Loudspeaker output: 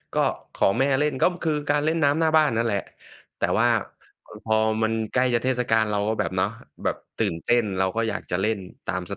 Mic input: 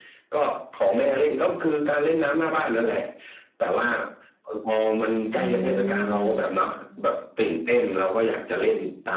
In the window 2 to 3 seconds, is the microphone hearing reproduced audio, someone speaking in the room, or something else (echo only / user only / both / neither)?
echo only